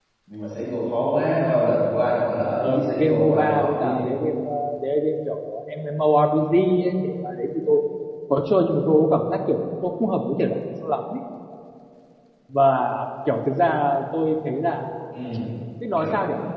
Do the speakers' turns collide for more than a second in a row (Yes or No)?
Yes